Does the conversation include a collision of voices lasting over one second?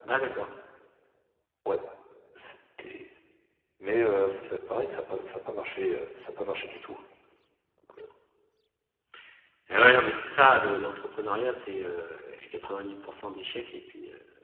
No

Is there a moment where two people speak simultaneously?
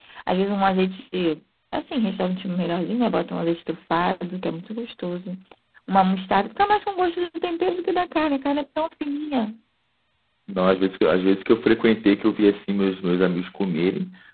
No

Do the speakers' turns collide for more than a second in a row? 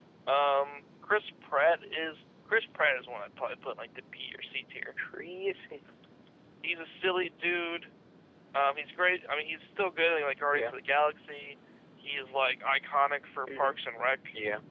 No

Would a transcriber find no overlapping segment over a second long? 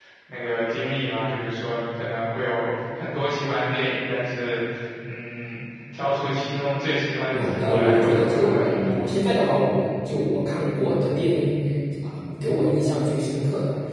No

